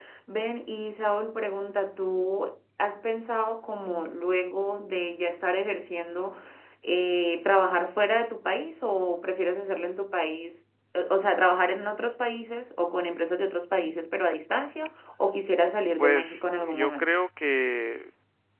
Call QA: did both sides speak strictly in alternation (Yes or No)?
No